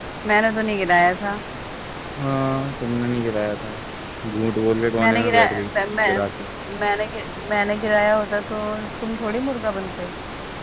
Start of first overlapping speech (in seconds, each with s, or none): 5.0 s